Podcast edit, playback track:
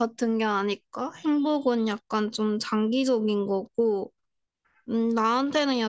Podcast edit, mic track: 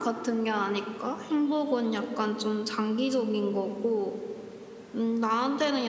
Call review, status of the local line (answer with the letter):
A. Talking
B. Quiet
B